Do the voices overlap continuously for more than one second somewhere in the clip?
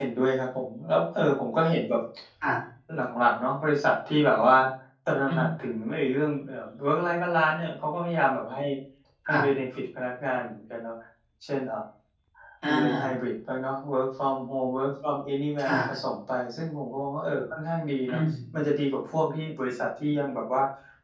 No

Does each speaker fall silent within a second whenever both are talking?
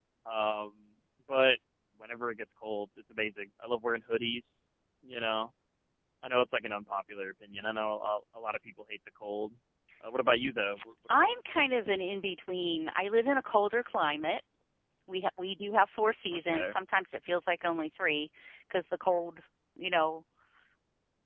Yes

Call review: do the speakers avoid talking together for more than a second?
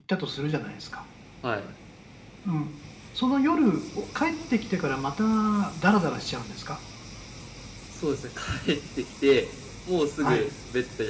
Yes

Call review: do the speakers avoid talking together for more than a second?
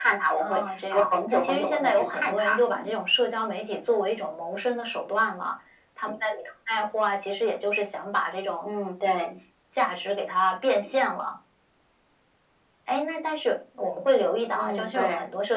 No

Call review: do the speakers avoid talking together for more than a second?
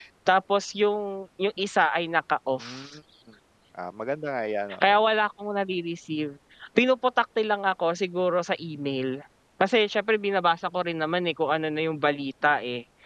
Yes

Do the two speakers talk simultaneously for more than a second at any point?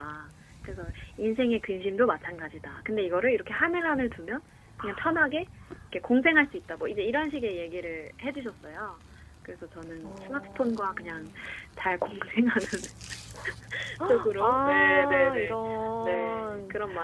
Yes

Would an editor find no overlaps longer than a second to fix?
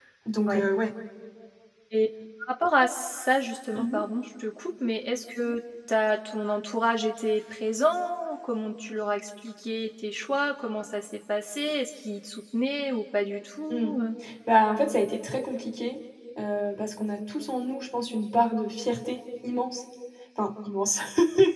Yes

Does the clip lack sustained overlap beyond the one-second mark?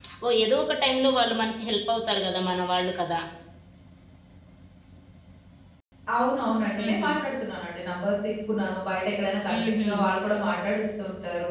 Yes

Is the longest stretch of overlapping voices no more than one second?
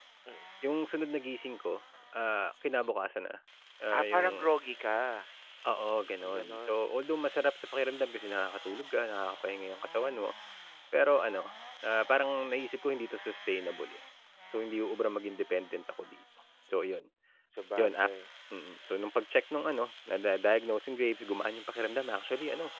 Yes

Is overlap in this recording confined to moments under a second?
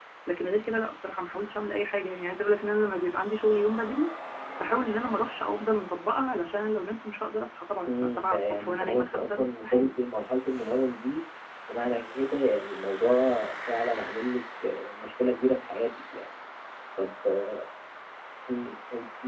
No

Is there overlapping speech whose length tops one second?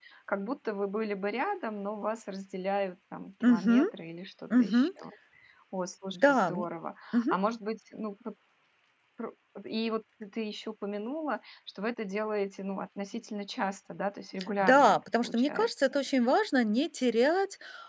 Yes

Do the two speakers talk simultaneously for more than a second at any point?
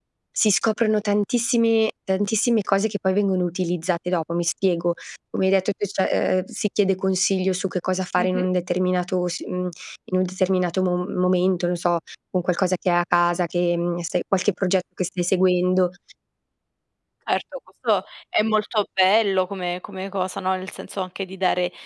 No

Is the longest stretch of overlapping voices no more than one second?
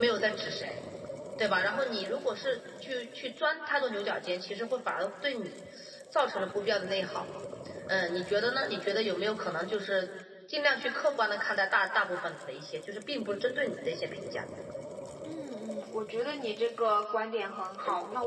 Yes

